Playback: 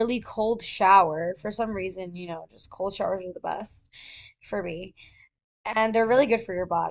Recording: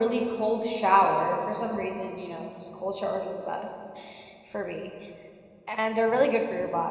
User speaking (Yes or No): No